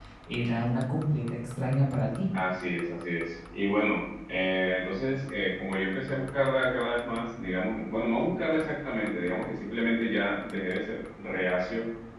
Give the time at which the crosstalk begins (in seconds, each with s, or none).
none